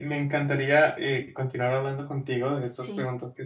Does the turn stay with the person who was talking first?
Yes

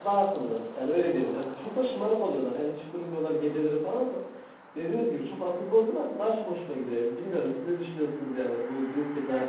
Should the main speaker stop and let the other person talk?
Yes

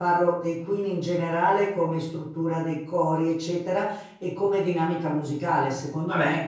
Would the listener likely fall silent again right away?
Yes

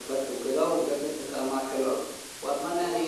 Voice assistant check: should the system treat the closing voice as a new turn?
No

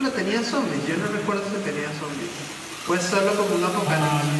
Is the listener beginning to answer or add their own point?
Yes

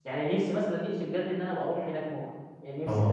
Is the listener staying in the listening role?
Yes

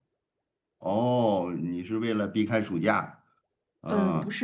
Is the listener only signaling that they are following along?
No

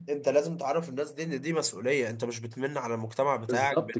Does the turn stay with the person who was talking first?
No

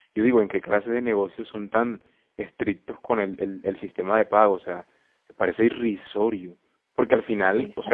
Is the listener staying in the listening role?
Yes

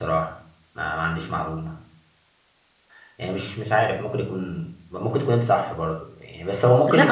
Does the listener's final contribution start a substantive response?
Yes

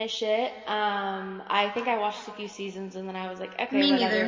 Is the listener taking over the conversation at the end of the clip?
No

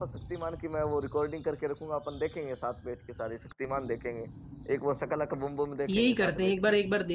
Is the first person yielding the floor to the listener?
Yes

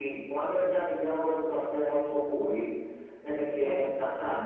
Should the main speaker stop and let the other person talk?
No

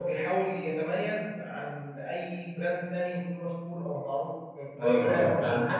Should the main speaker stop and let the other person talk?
Yes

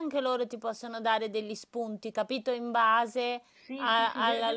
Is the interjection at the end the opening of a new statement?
Yes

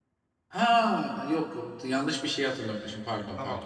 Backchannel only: No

